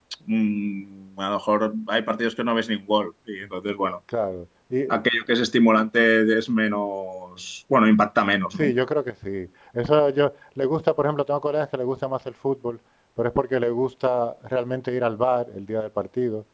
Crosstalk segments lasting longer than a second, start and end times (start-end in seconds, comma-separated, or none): none